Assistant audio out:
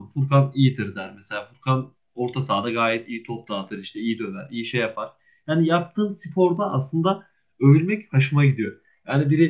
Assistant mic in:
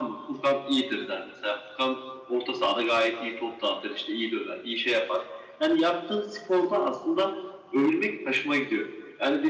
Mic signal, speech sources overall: echo only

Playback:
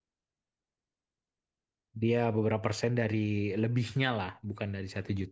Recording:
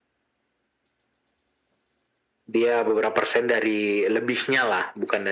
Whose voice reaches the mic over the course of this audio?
echo only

